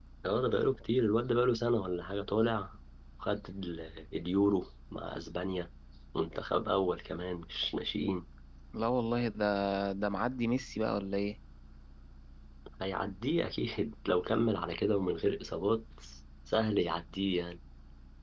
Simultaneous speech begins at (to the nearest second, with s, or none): none